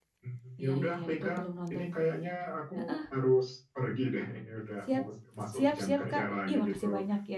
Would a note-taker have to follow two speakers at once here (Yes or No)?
Yes